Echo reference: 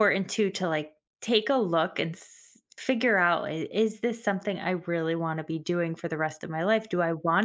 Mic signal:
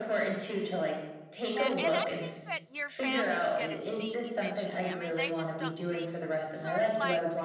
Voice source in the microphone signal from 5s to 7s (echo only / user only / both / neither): both